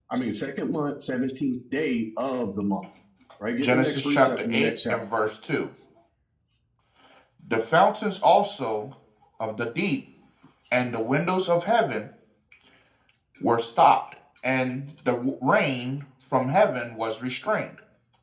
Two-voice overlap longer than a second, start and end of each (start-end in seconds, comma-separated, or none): 3.6-5.0